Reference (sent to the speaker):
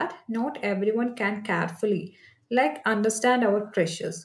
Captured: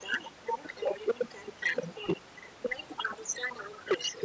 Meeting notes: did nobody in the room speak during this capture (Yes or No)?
Yes